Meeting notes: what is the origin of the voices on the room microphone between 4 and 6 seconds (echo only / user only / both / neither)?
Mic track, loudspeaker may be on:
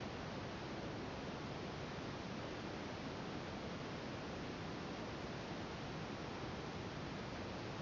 neither